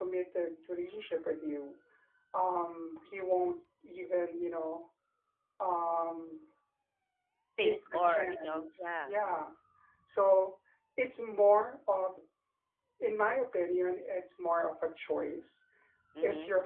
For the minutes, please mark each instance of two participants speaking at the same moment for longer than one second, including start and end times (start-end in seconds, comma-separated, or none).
7.6-9.4